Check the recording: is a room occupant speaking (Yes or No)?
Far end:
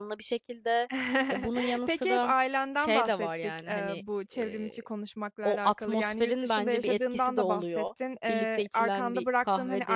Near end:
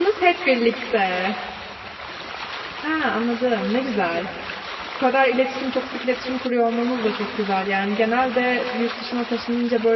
Yes